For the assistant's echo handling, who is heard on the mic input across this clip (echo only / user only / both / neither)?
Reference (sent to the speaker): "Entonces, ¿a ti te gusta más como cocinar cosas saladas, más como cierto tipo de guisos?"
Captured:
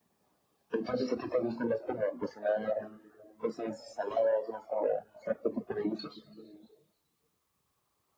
echo only